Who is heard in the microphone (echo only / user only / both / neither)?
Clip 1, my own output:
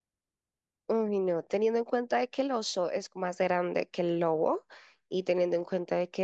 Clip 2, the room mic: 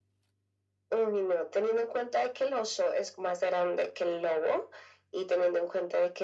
echo only